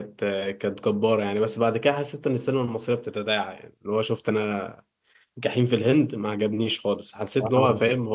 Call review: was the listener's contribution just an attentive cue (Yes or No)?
Yes